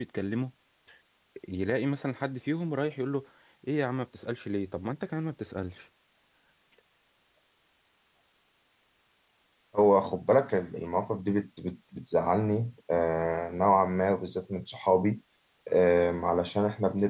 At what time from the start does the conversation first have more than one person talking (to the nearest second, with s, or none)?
none